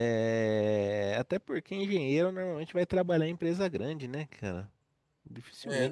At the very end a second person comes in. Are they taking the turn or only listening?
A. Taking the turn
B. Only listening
B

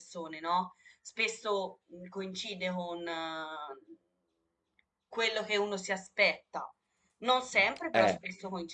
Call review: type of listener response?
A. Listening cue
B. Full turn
A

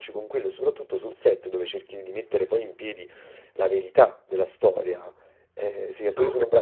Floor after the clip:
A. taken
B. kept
B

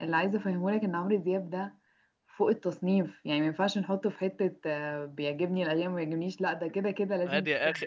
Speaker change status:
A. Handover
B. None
A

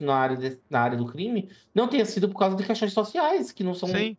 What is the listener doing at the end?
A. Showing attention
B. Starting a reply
B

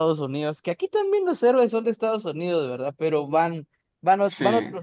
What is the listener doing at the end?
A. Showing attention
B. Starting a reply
A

